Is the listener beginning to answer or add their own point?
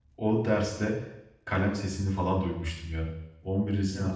No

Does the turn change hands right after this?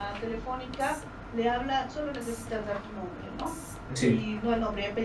No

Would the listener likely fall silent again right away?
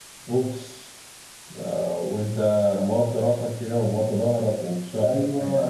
No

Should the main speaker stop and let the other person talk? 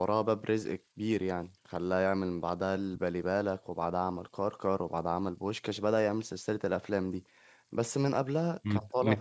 Yes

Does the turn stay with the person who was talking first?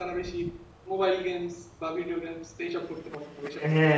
No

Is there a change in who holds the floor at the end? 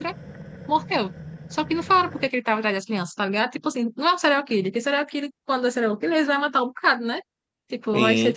Yes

